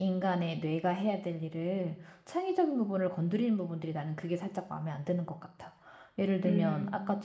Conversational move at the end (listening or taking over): listening